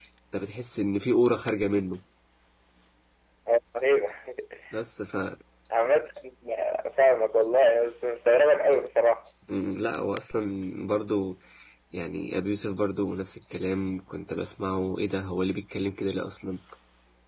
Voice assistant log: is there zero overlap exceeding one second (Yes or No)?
Yes